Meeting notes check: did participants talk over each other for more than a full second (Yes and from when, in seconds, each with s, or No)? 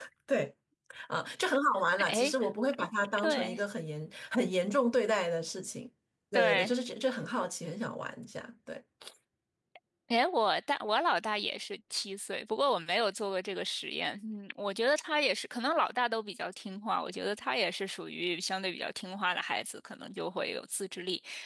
No